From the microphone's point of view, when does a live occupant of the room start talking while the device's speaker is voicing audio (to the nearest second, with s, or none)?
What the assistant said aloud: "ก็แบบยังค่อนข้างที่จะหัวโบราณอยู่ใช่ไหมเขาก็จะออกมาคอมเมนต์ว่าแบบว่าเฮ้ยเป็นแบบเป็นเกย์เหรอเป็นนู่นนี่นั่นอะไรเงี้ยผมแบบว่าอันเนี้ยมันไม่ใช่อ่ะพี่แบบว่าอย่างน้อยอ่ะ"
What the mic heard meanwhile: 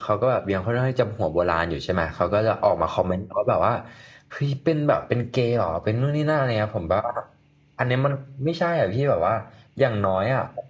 none